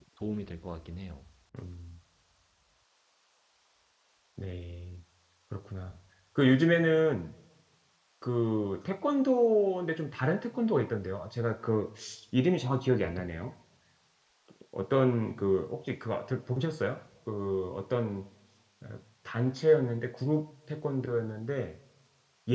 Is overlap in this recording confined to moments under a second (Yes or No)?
Yes